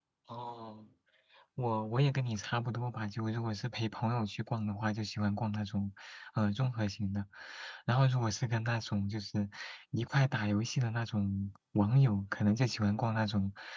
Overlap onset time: none

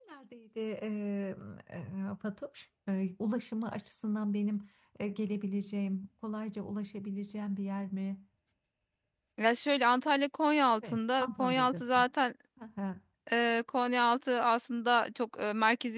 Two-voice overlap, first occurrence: 10.8 s

